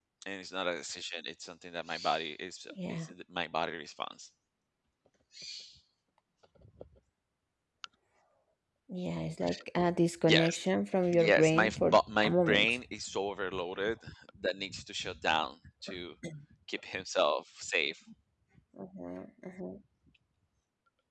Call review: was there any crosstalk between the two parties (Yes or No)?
Yes